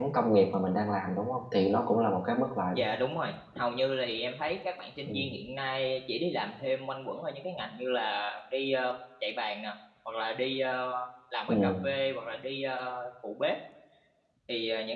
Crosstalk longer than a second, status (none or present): none